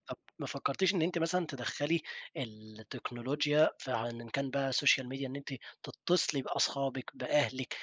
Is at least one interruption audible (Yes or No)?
No